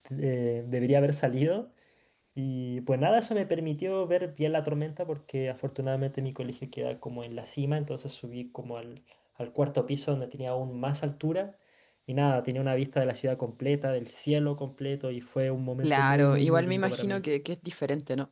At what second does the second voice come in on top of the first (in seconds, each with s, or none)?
15.8 s